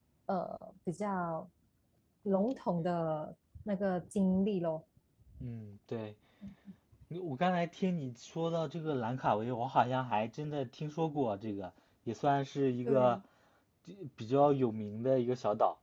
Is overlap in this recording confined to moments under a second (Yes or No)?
Yes